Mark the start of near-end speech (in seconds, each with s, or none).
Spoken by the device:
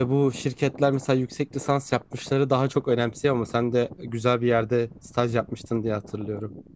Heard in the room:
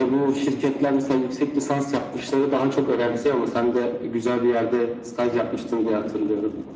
none